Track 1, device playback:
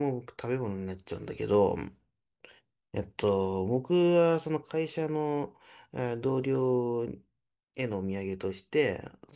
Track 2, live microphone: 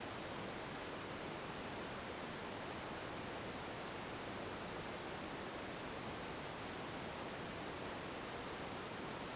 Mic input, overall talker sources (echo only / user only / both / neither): neither